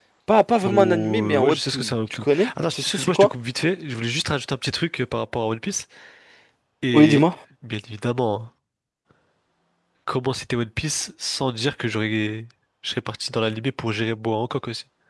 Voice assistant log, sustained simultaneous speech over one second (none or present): present